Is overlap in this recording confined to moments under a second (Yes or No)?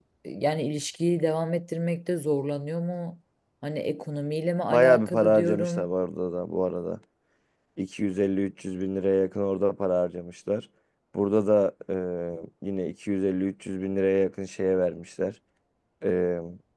No